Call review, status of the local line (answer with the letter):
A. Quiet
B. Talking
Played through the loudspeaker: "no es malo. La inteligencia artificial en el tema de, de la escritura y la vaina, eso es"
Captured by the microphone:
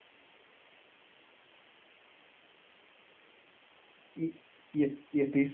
B